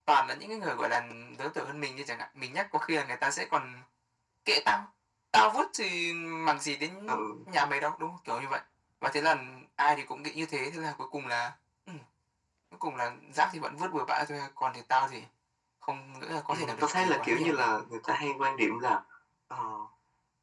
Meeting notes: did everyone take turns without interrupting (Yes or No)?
No